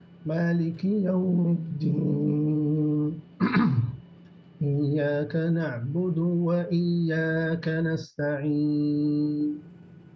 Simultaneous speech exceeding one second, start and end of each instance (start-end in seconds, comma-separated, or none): none